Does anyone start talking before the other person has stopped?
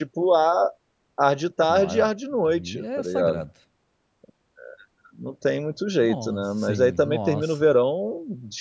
Yes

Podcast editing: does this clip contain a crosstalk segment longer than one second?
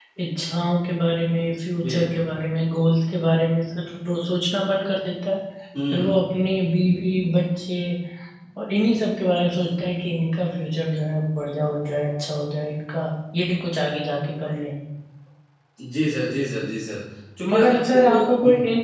Yes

